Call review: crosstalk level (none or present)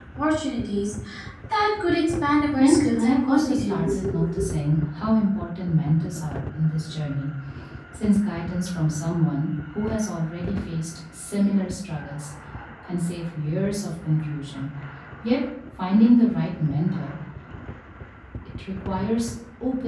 present